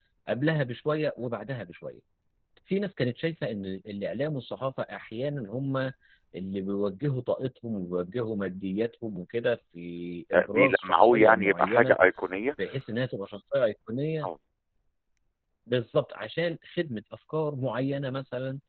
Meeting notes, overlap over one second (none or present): present